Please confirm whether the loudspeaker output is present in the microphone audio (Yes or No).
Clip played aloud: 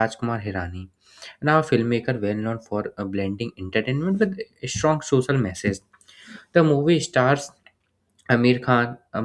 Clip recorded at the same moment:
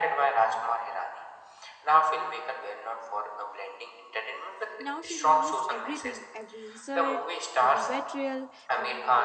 Yes